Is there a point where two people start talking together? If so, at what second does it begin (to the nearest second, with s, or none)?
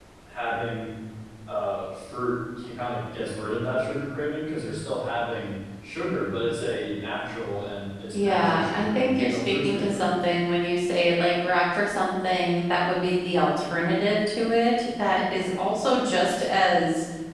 8 s